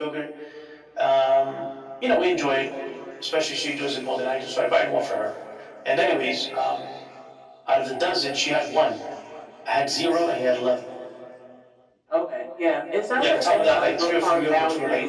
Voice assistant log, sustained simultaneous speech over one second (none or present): present